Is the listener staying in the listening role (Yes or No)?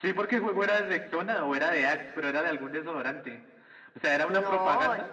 No